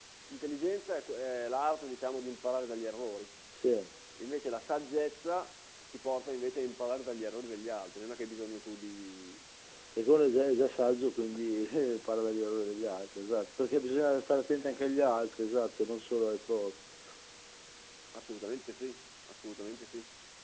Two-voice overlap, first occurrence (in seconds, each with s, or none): none